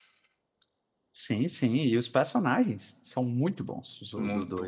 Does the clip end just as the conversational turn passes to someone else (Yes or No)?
Yes